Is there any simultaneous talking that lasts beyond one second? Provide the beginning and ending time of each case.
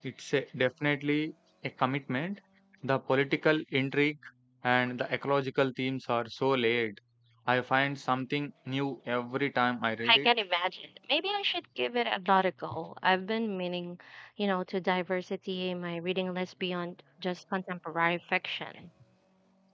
none

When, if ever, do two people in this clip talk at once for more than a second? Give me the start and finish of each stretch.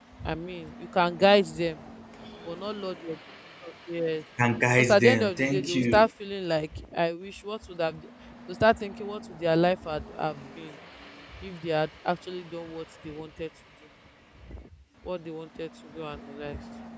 4.8-6.1

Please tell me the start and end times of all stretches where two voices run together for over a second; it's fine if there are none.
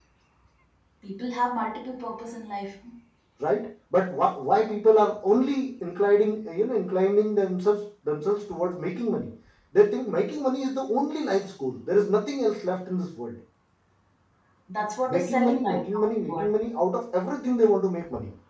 15.1-16.4

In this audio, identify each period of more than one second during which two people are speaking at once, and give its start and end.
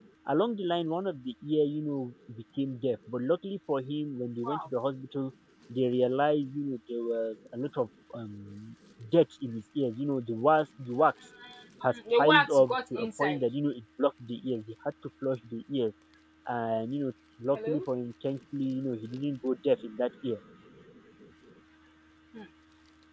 11.9-13.4

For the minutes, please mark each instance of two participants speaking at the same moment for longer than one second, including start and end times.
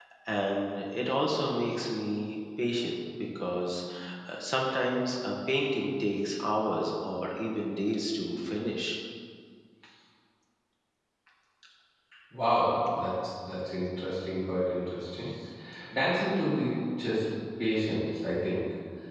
none

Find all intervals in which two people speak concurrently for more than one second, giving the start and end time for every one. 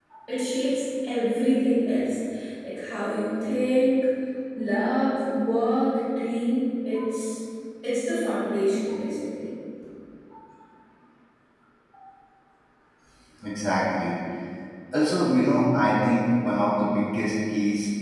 none

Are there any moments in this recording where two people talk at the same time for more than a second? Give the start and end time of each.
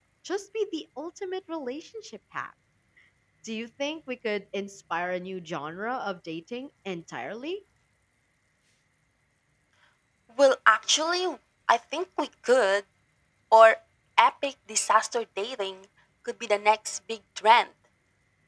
none

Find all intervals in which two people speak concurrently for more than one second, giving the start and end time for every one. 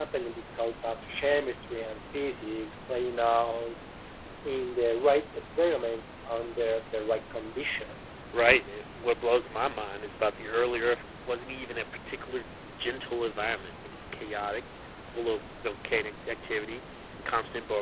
none

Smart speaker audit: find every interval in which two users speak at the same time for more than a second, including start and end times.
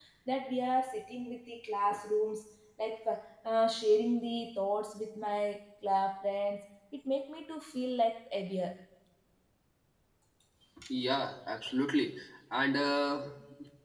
none

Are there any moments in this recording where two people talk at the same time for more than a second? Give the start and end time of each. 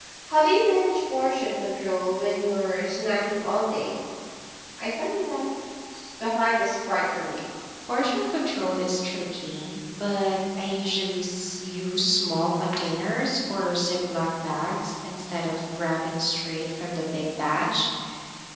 none

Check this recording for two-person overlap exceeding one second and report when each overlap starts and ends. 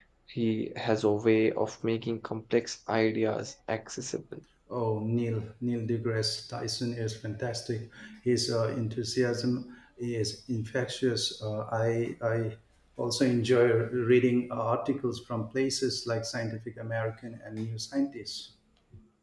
none

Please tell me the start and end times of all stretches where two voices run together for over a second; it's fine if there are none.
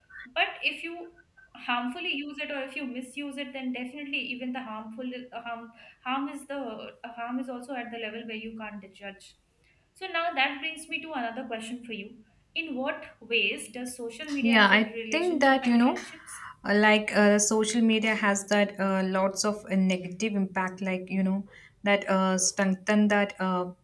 14.4-16.0

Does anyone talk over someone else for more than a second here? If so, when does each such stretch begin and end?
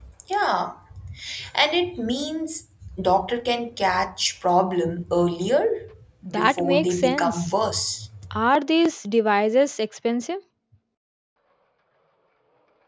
6.3-7.5

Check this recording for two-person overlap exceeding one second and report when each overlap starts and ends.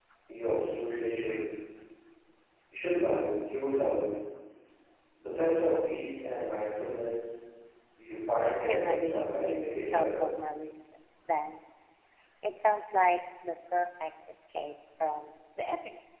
8.6-10.4

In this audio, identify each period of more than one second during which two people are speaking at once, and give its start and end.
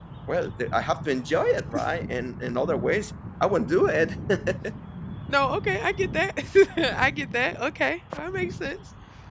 none

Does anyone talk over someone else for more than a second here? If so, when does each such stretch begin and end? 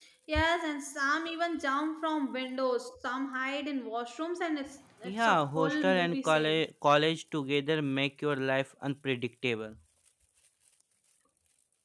5.0-6.6

